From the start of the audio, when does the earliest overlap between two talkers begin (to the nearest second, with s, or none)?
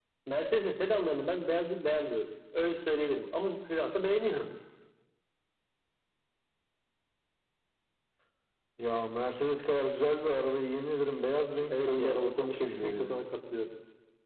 12 s